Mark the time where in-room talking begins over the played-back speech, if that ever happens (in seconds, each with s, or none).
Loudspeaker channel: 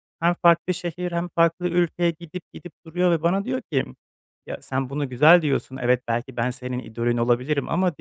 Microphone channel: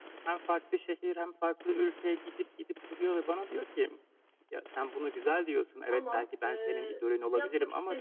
5.9 s